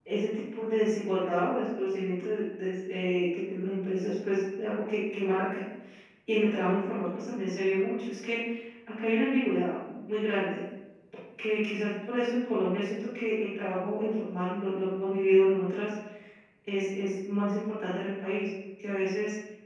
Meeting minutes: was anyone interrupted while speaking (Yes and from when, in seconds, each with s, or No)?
No